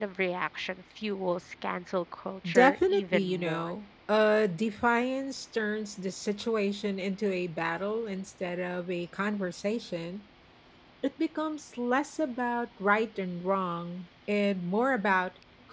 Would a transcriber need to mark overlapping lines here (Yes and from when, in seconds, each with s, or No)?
Yes, from 2.4 s